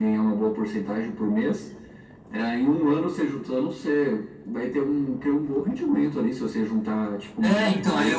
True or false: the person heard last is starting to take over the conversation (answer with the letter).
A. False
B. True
B